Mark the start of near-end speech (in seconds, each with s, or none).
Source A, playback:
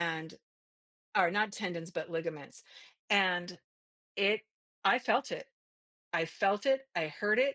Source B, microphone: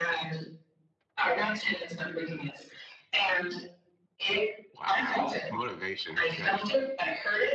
4.7 s